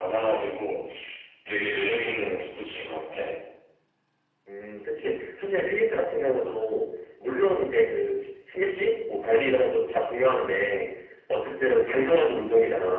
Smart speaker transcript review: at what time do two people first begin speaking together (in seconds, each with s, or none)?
none